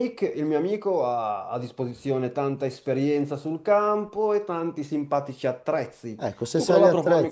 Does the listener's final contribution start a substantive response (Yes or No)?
Yes